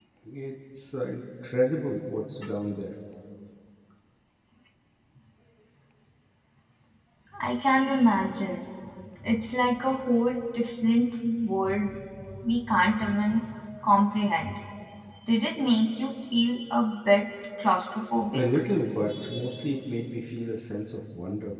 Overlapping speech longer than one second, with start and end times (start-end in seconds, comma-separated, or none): none